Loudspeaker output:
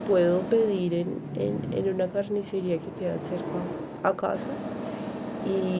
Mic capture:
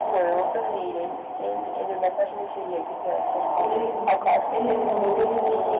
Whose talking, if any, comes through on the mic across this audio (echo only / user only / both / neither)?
both